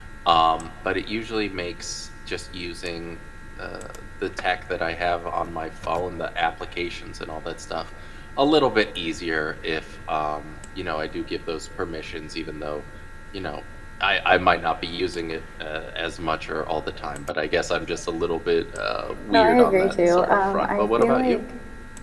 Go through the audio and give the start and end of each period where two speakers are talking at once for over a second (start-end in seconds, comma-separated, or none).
19.3-21.4